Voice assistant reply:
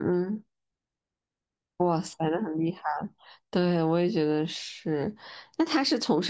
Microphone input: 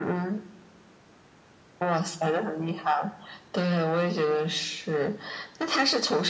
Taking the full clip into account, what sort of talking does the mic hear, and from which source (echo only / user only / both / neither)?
echo only